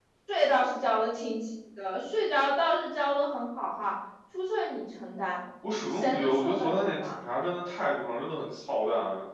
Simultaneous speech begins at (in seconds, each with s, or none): 5.6 s